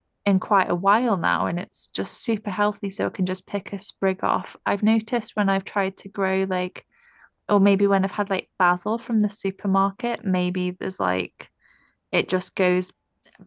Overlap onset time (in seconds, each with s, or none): none